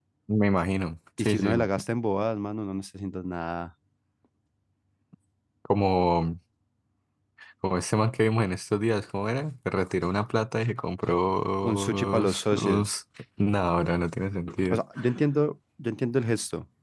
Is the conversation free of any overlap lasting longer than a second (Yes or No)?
No